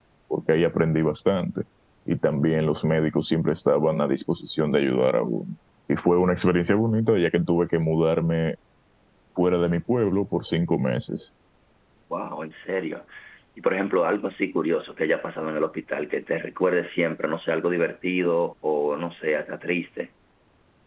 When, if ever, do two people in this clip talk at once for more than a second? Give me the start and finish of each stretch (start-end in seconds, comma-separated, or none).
none